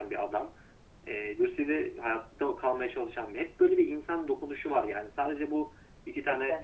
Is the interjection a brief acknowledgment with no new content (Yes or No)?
Yes